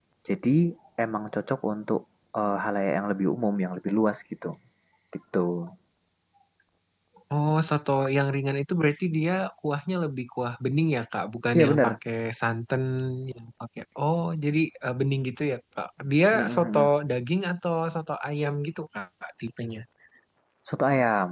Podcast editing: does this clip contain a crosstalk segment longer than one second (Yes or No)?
No